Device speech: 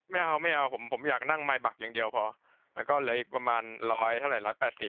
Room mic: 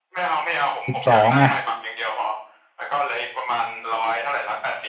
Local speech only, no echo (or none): สิบสองอ่ะ